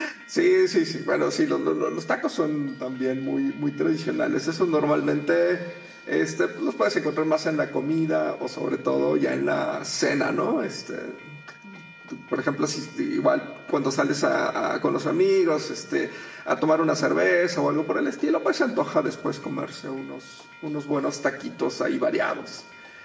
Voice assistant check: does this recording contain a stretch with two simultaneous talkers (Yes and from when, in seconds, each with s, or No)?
No